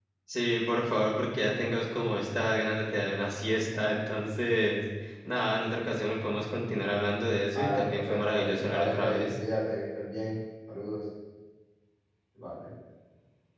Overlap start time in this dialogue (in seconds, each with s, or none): 7.5 s